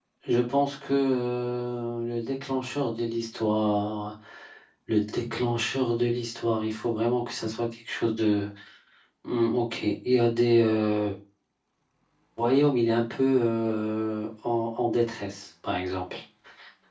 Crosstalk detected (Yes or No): No